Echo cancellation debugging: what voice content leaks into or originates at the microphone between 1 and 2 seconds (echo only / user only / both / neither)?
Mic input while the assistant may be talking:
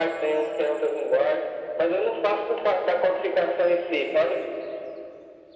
echo only